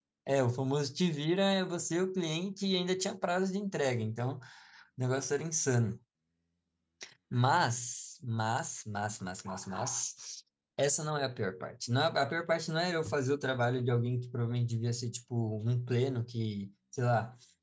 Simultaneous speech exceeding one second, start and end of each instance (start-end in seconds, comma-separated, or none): none